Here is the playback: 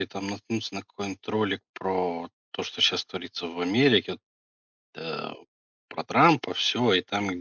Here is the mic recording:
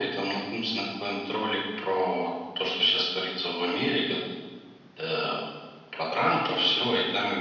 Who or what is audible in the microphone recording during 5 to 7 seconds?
echo only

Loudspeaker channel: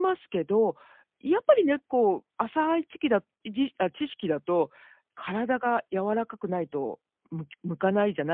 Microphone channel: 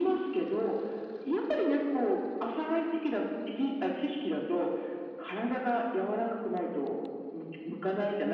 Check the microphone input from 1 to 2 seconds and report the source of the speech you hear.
echo only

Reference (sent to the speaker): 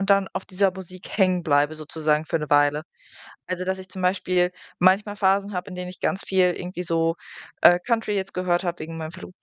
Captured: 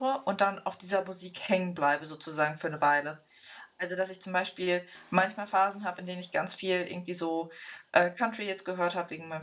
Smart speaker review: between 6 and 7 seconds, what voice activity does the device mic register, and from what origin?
echo only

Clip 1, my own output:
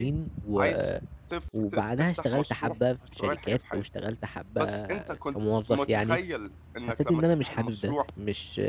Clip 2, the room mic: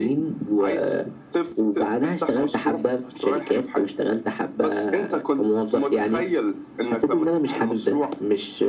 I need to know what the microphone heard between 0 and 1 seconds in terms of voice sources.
echo only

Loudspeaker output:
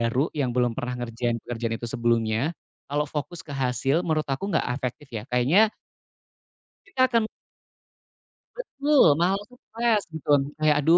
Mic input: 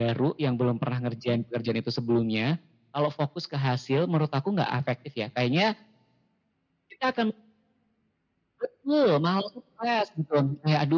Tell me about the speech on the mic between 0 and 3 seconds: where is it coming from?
echo only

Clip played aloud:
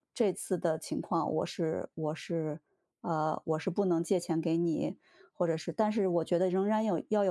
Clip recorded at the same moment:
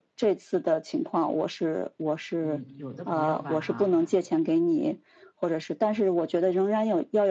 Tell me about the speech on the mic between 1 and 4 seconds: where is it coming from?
both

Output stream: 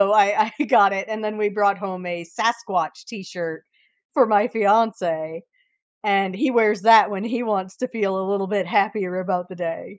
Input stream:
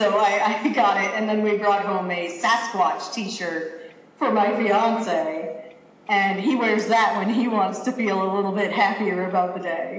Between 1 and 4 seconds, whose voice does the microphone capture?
echo only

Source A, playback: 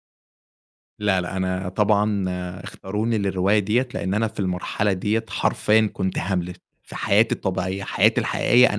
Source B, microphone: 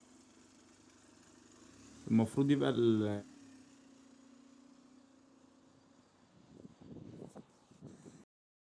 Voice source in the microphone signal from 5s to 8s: neither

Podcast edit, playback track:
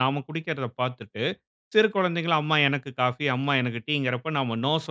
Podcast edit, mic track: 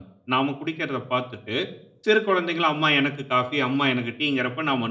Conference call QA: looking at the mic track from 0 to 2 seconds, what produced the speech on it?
echo only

